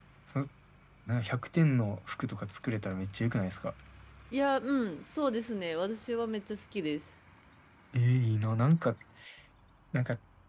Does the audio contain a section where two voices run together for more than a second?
No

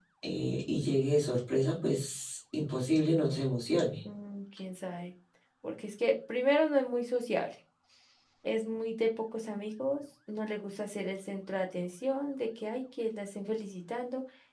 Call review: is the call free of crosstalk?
Yes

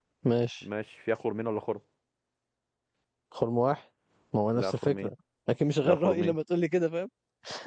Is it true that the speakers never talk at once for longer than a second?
Yes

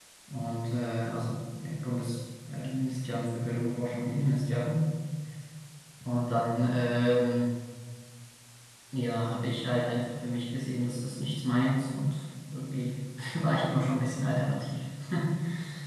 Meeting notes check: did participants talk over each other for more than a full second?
No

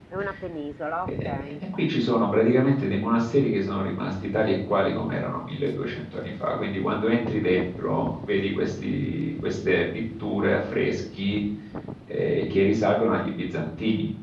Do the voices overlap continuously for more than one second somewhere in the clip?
No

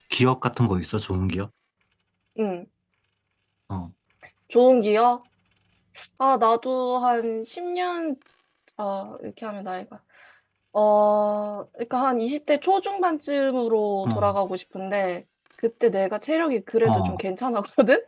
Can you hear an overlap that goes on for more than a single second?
No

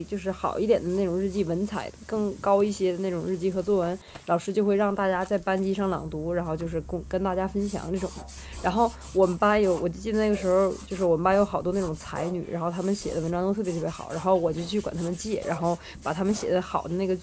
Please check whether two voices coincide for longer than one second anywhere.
No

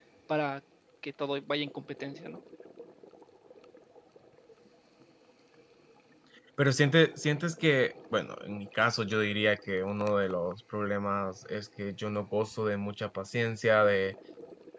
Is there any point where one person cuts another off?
No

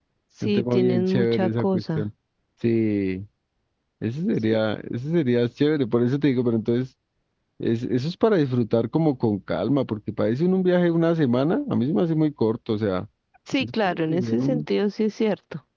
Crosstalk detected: Yes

